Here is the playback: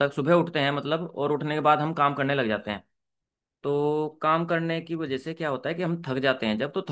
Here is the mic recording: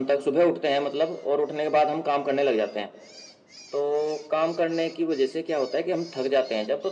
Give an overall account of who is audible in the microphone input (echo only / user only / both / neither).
echo only